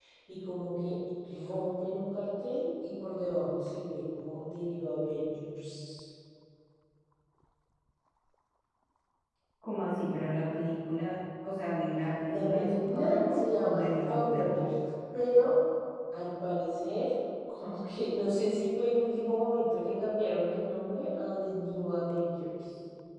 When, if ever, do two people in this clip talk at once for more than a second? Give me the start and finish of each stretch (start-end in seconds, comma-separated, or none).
12.3-14.5